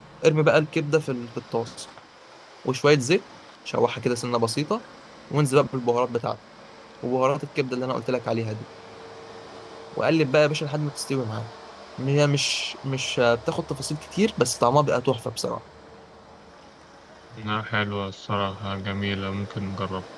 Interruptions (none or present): none